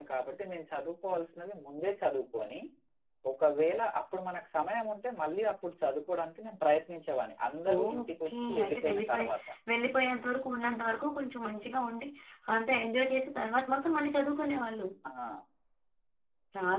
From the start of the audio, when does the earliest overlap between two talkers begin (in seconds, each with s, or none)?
7.7 s